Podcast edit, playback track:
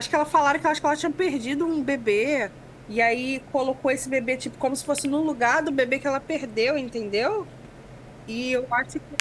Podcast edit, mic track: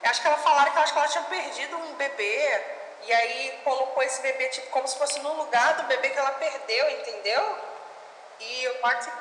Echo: present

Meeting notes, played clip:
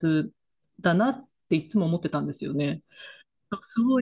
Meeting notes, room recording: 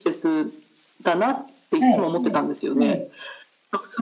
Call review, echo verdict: present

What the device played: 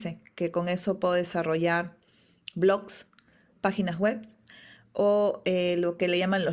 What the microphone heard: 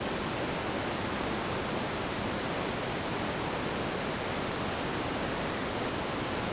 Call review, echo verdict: none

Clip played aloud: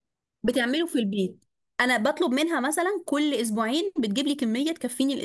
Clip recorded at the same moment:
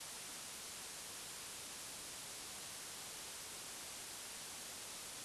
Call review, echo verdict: none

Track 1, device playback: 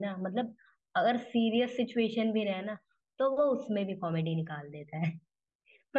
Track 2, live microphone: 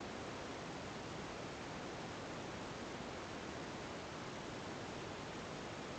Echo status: none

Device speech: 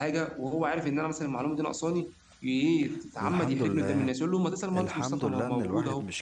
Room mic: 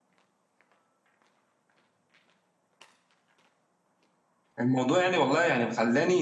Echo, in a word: none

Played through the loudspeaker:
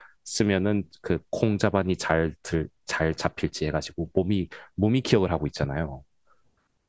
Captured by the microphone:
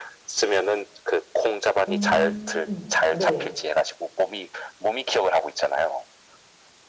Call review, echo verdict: present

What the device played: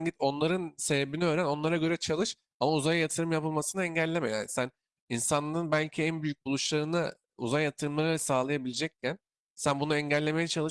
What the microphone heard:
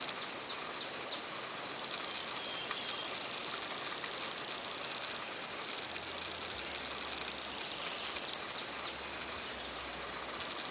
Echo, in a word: none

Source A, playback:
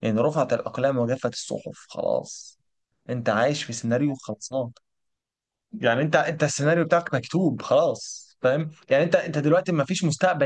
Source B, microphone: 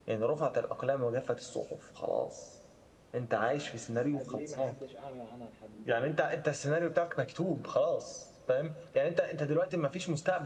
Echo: present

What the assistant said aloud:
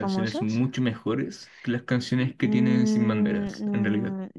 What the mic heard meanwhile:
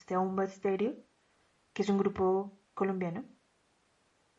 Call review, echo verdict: none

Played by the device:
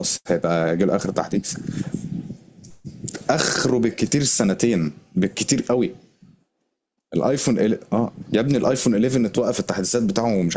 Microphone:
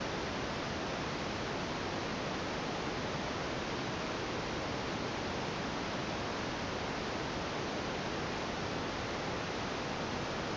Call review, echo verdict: none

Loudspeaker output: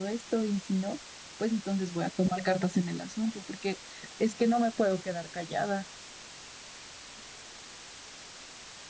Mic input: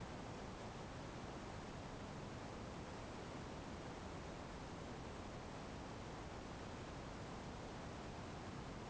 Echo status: none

